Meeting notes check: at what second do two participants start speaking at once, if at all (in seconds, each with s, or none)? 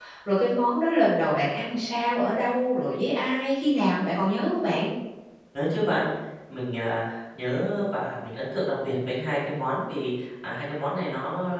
none